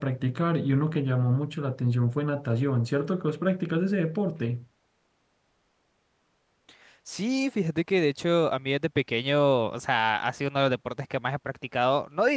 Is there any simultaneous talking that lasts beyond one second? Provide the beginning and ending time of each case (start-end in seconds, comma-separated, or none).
none